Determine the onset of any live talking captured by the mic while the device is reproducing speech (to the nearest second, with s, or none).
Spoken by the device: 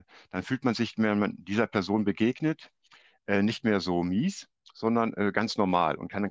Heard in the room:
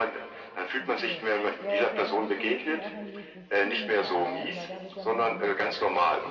1 s